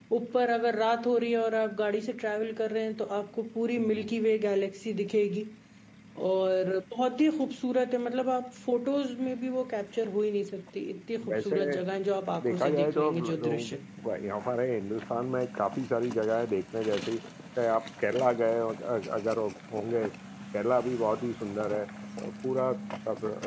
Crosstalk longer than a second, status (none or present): present